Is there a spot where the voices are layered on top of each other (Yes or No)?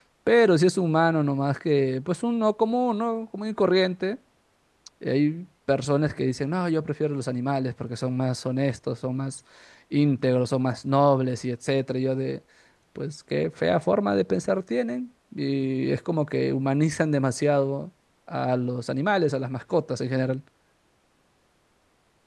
No